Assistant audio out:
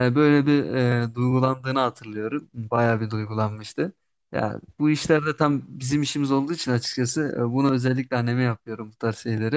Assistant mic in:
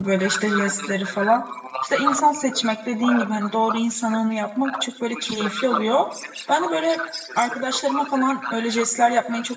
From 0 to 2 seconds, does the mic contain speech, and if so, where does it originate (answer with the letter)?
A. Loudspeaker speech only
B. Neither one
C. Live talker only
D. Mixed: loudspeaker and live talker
D